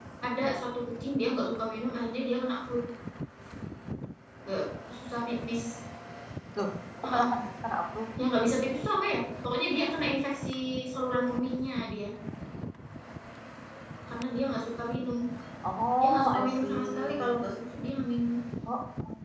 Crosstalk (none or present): present